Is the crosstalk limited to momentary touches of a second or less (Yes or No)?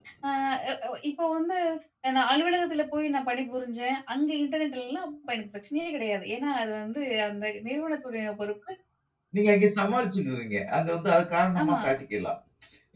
Yes